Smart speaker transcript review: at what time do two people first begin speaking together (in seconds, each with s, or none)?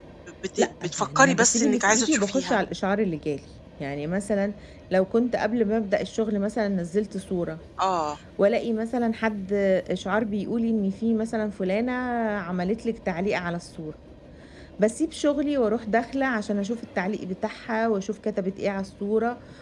0.6 s